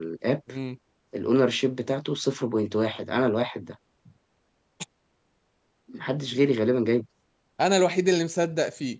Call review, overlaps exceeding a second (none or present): none